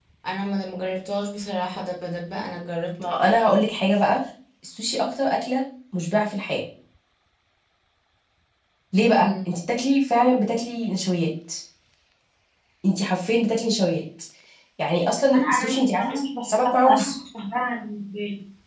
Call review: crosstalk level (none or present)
present